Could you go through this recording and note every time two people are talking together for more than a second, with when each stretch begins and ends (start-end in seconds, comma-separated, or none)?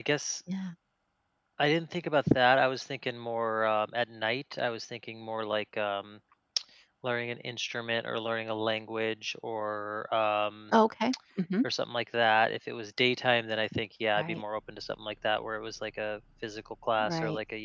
none